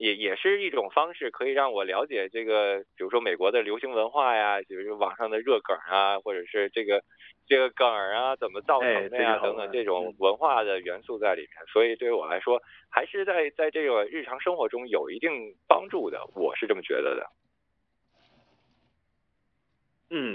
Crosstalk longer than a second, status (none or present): present